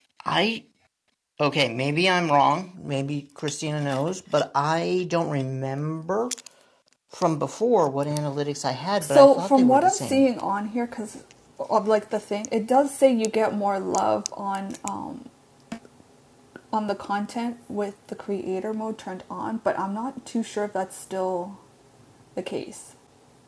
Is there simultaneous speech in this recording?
Yes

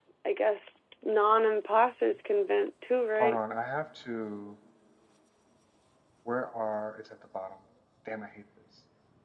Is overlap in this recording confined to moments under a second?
Yes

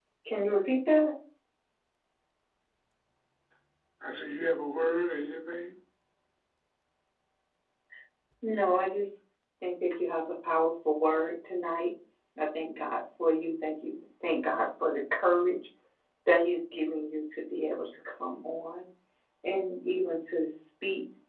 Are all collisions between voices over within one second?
Yes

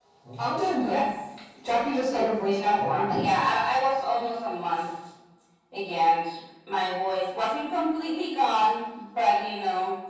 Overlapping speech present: Yes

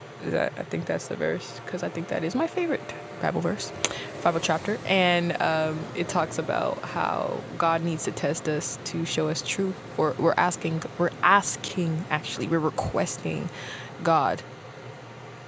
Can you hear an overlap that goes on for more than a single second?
No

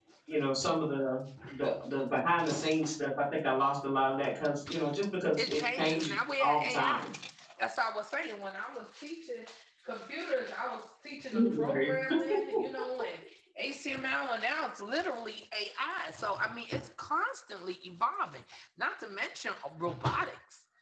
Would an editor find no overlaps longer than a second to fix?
No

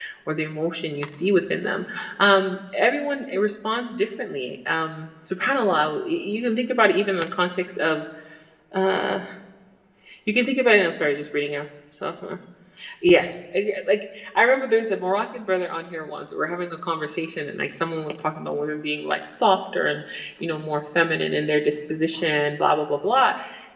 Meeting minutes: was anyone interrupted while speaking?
No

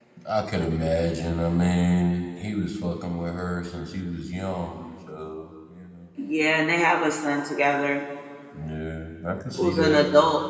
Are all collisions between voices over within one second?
Yes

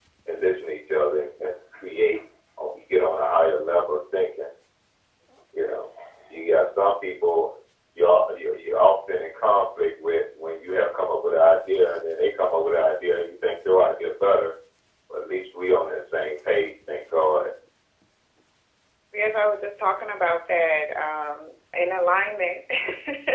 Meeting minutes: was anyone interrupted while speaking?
No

